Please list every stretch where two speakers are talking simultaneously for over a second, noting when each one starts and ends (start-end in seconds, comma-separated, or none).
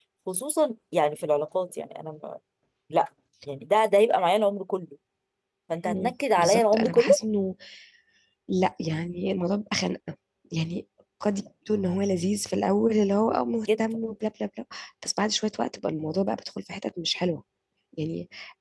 5.9-7.2